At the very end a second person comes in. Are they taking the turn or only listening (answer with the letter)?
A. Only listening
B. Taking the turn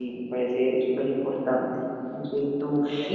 A